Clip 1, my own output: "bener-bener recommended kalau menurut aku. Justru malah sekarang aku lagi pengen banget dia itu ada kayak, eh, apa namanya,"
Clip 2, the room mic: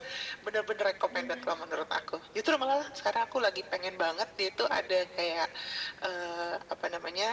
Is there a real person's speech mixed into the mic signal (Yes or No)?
Yes